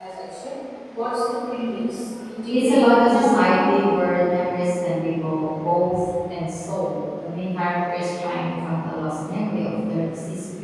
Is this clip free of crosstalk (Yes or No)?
No